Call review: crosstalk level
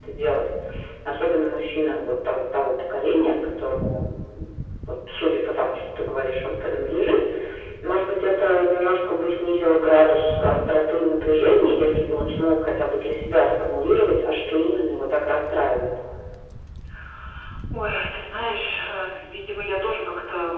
none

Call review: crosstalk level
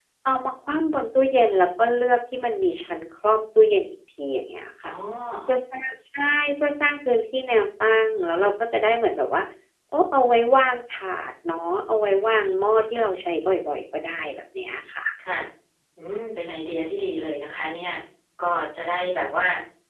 none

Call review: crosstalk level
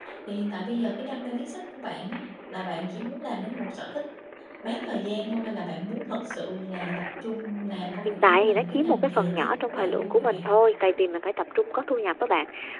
present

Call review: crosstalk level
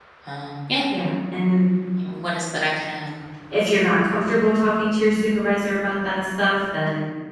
none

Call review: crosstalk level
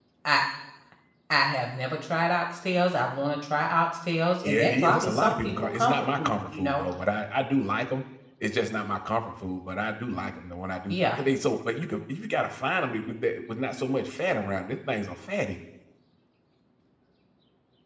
present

